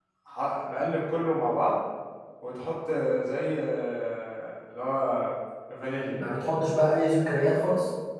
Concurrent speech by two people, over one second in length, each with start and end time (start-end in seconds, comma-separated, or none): none